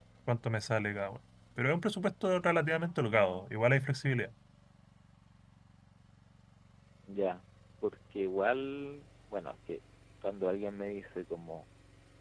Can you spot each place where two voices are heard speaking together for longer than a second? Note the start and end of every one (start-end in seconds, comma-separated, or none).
none